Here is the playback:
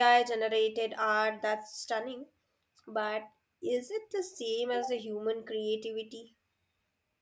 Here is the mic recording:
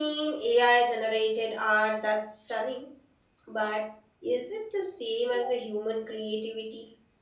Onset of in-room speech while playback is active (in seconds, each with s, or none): none